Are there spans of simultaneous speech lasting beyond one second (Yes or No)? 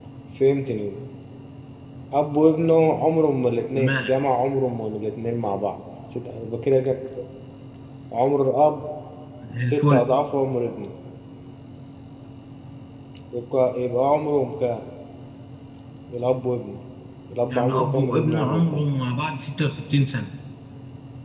Yes